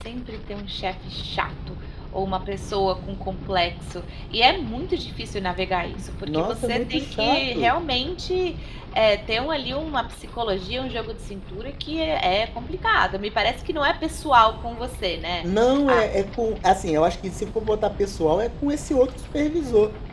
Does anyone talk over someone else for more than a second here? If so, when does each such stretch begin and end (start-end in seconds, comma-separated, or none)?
6.3-7.7